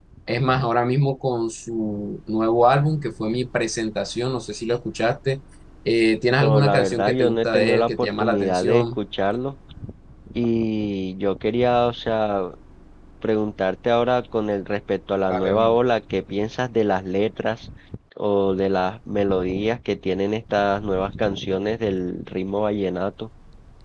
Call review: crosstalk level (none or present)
present